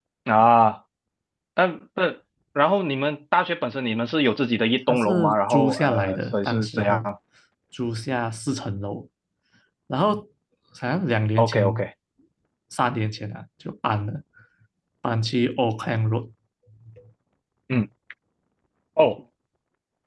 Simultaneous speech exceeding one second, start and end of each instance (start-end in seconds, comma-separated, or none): 4.9-7.1